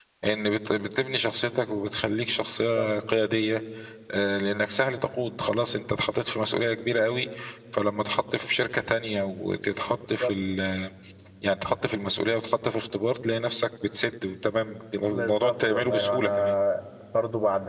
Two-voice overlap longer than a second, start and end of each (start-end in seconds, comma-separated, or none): 15.1-16.6